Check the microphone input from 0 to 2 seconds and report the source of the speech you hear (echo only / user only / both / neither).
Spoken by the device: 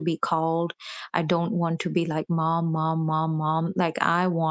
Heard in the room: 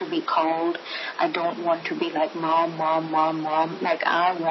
echo only